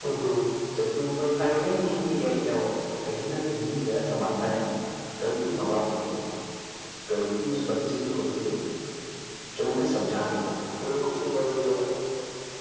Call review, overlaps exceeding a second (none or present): none